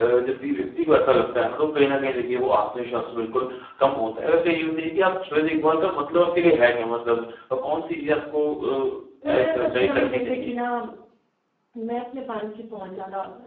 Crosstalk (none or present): present